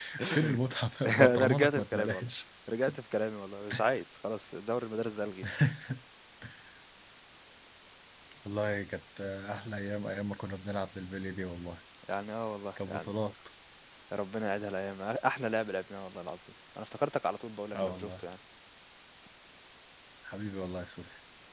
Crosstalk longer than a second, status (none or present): present